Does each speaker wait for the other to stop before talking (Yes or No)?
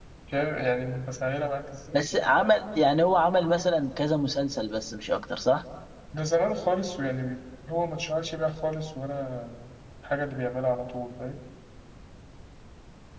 Yes